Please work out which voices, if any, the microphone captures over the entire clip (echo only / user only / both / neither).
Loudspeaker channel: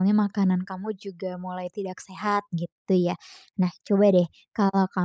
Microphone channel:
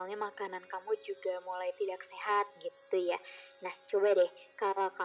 echo only